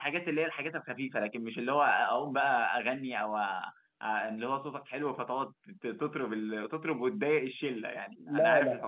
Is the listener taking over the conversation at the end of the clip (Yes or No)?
Yes